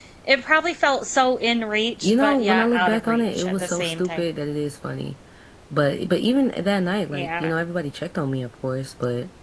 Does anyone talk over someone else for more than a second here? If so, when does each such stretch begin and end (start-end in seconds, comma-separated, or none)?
2.0-4.2